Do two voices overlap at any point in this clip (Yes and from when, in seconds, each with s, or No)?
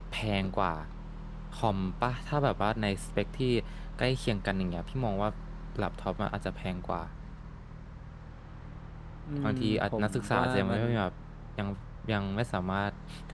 Yes, from 9.4 s